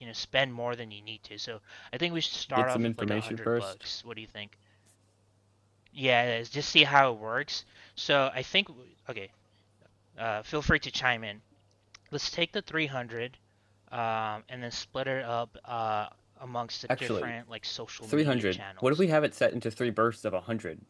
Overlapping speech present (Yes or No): Yes